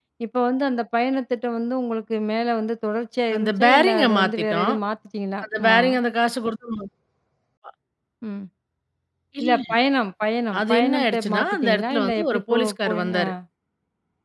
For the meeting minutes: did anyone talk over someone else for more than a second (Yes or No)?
Yes